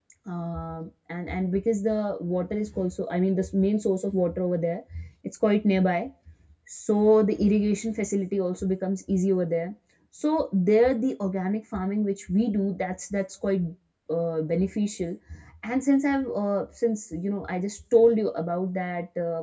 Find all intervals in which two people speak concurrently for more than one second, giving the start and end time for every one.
none

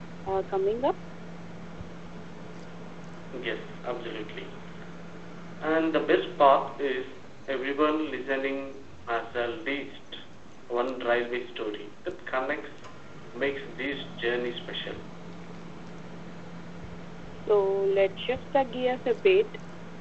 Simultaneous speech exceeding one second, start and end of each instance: none

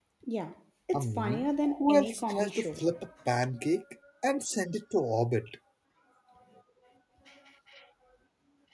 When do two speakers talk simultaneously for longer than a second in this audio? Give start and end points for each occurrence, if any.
0.9-2.7

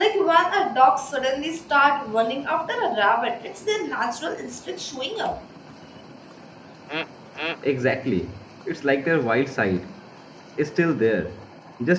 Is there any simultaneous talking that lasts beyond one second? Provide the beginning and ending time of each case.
none

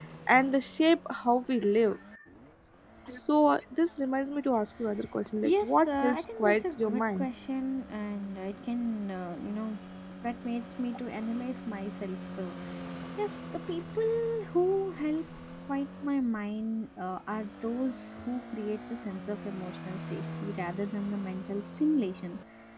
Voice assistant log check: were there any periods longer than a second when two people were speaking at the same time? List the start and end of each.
5.4-7.3

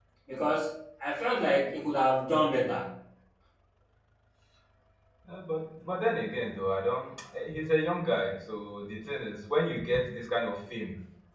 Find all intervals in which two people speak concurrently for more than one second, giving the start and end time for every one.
none

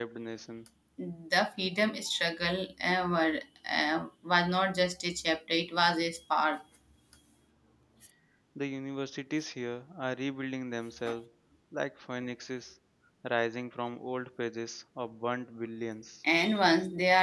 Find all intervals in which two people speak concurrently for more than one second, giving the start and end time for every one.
none

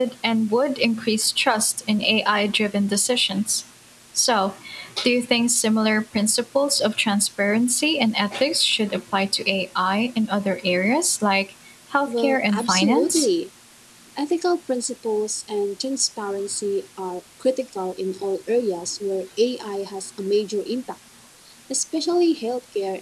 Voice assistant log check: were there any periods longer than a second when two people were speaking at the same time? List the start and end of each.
12.1-13.3

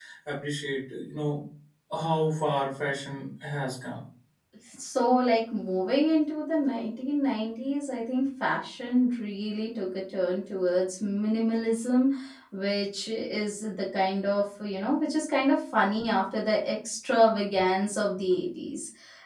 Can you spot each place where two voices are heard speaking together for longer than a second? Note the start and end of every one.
none

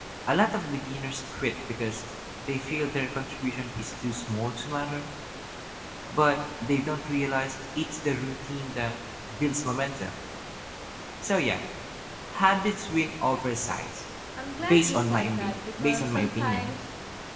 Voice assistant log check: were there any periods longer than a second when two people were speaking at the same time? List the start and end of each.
14.6-16.7

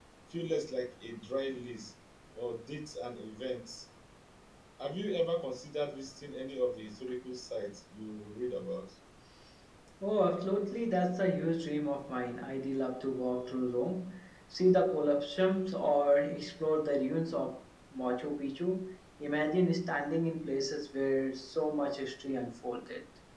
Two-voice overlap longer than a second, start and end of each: none

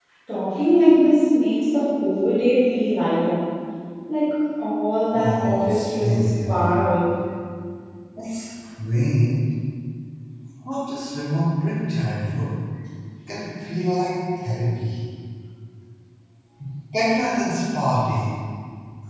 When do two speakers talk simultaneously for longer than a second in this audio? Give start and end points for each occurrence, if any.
5.1-6.8

